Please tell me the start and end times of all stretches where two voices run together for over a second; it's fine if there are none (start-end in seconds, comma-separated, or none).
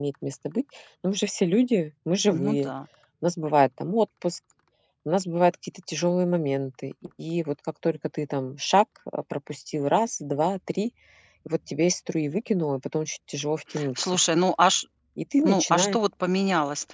none